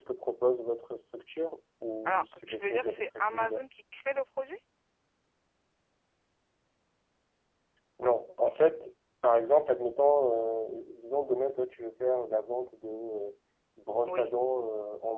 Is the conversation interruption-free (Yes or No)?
No